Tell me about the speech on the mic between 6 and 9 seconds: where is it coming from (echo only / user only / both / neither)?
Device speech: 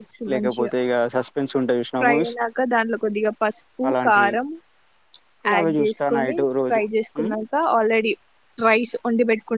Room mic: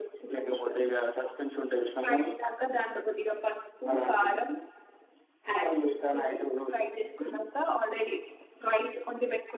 echo only